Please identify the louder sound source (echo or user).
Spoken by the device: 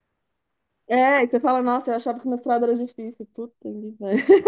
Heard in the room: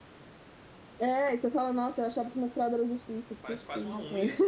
echo